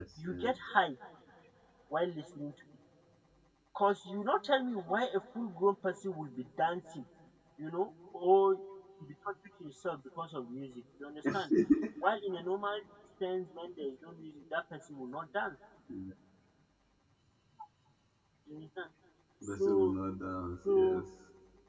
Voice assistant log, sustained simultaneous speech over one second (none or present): none